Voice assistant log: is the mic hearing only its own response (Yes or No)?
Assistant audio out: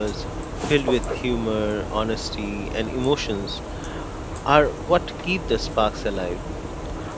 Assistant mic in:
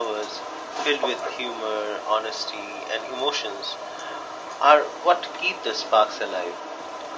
Yes